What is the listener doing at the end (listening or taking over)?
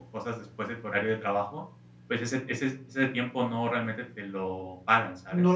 taking over